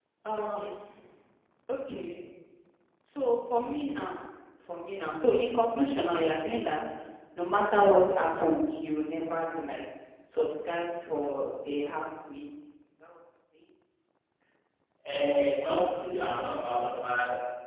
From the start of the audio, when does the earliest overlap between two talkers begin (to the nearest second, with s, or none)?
none